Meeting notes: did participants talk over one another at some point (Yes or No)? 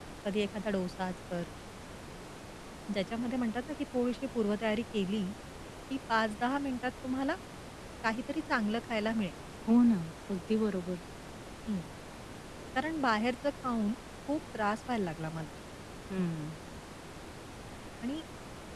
No